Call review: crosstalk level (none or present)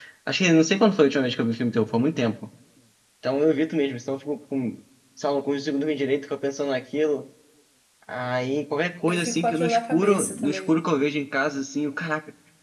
present